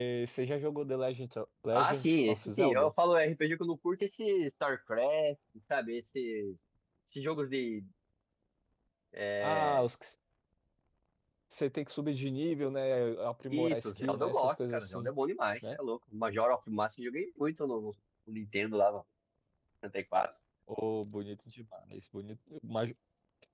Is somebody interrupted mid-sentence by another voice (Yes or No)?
Yes